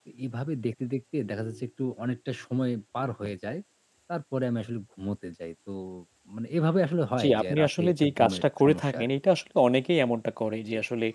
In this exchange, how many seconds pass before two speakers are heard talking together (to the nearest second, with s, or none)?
7 s